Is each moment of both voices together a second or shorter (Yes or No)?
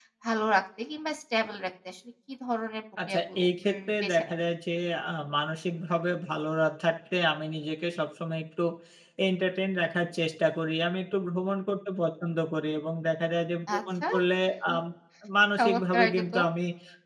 No